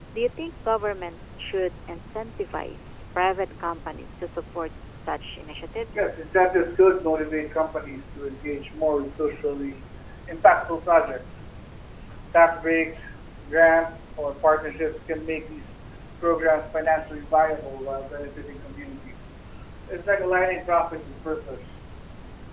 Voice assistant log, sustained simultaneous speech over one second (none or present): none